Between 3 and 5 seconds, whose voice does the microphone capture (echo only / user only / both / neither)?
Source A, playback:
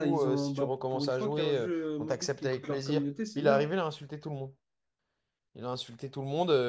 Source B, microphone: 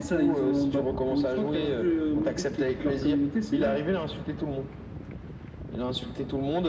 echo only